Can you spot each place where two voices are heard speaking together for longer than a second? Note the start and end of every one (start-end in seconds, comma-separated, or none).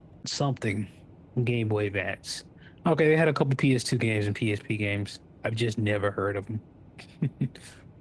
none